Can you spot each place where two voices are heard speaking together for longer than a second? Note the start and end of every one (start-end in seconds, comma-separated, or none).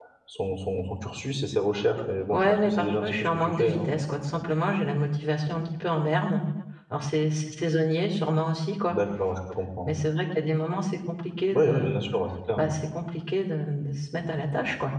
2.3-3.9